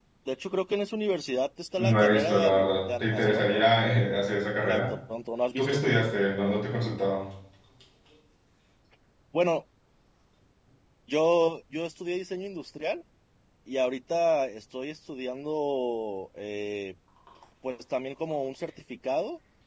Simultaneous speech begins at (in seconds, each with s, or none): 1.9 s